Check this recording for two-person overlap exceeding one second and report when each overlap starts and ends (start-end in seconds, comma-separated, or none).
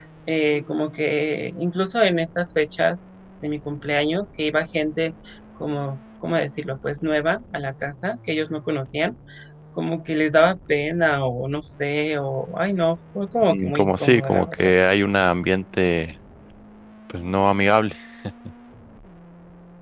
13.5-14.7